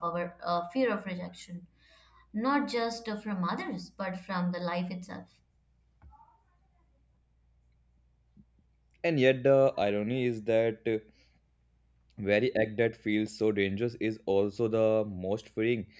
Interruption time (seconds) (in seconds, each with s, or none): none